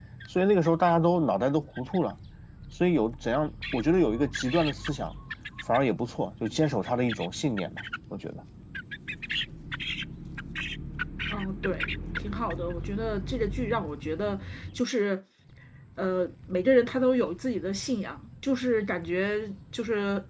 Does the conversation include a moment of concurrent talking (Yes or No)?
No